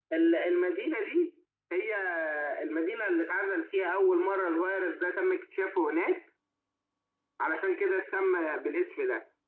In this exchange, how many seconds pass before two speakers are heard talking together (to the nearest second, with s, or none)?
none